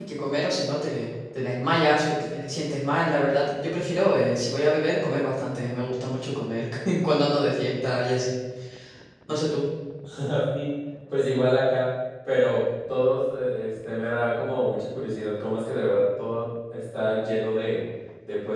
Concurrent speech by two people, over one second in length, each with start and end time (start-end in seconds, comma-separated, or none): none